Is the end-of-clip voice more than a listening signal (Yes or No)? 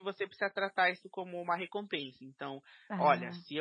No